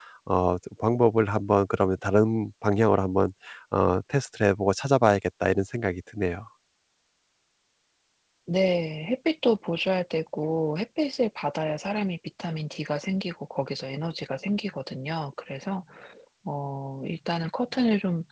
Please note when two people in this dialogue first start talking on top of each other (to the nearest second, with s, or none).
none